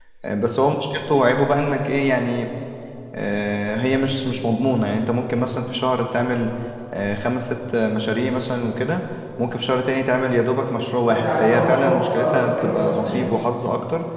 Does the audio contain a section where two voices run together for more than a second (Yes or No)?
Yes